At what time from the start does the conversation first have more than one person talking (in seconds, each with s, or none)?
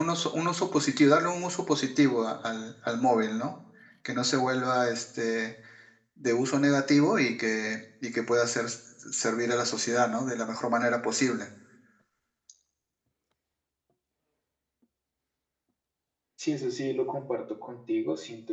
none